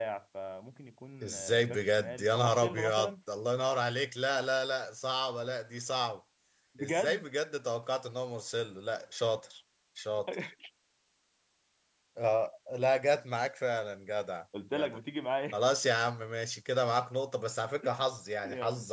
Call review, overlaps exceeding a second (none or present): present